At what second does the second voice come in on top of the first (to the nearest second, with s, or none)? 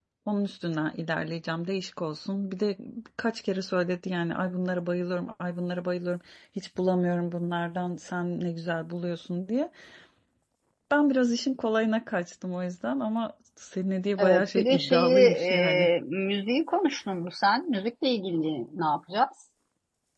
14 s